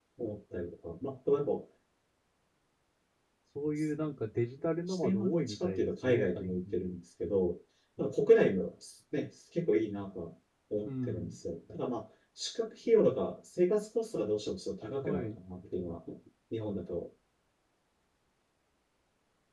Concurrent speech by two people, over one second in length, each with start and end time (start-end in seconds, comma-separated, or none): 4.9-6.8